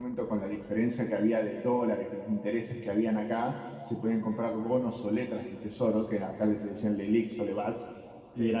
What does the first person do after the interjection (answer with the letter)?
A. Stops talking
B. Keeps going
B